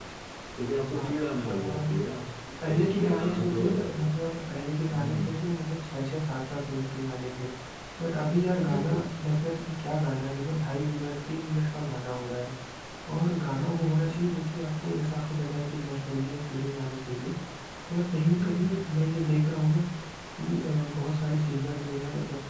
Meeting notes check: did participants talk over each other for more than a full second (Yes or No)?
Yes